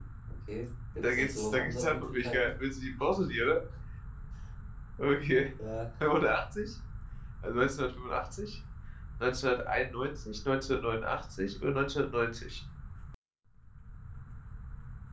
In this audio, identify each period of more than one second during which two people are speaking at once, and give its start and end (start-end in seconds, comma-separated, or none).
1.0-2.5